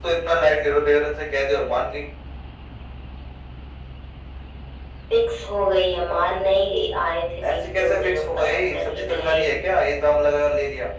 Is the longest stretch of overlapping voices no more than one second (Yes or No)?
No